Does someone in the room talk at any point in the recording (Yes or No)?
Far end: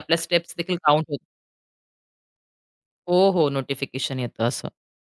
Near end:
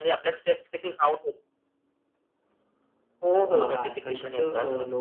Yes